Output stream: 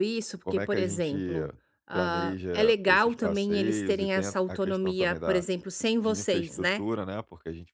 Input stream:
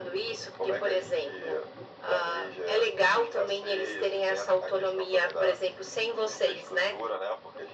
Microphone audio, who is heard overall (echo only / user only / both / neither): echo only